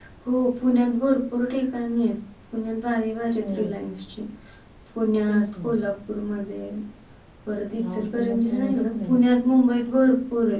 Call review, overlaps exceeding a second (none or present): present